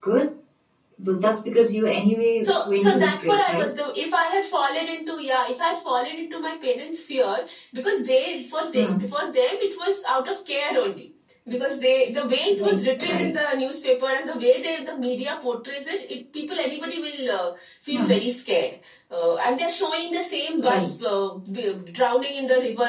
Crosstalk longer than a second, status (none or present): present